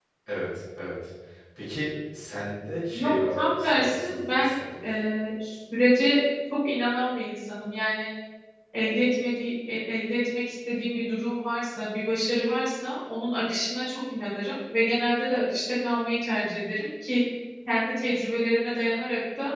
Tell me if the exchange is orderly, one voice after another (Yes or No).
No